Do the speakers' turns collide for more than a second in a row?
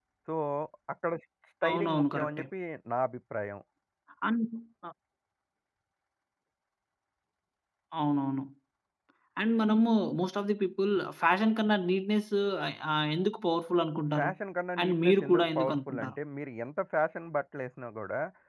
Yes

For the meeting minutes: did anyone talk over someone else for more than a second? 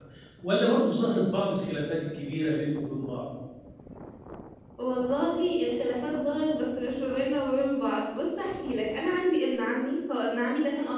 No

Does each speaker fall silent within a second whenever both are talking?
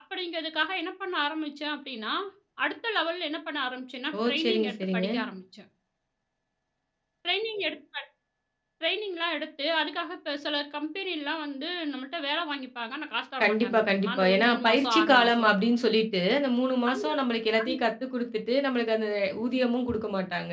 No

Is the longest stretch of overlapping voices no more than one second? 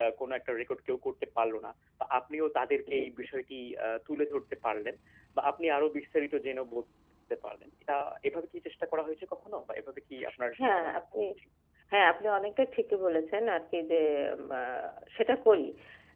Yes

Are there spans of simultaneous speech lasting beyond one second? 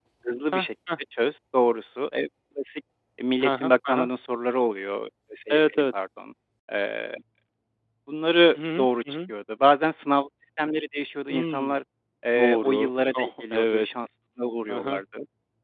Yes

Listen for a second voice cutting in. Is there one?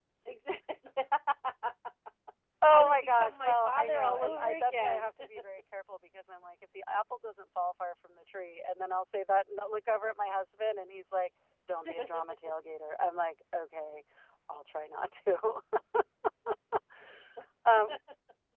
Yes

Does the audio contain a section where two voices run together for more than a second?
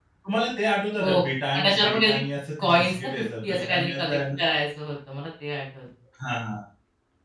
Yes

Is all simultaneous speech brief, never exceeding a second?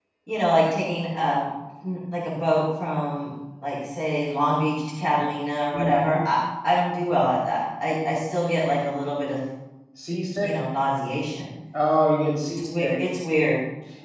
Yes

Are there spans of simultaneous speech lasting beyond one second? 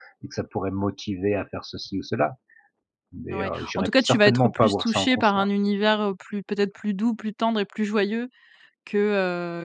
Yes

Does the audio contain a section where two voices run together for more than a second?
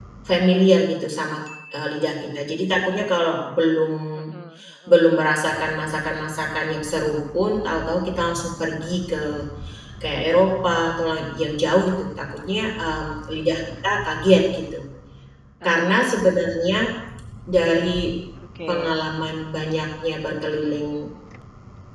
No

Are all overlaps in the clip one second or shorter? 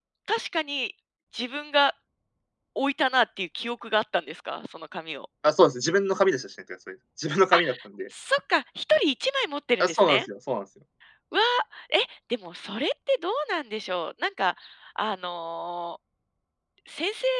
Yes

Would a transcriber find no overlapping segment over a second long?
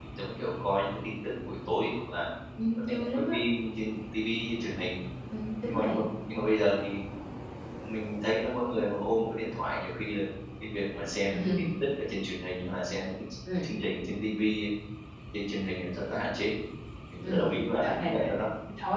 No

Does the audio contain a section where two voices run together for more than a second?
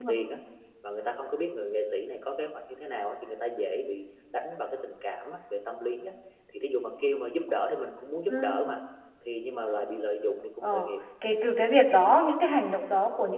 No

